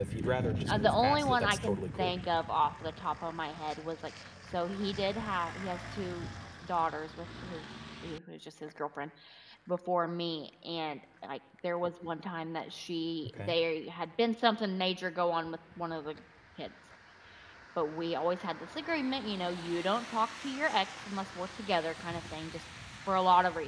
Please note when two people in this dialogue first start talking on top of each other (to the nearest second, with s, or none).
1 s